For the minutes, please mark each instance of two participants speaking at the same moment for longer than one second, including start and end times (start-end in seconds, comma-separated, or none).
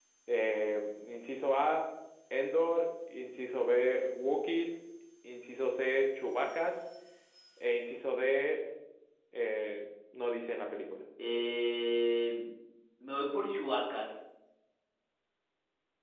none